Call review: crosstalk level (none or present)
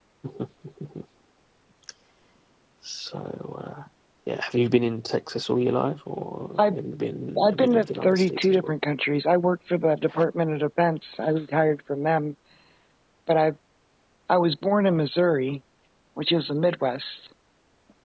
present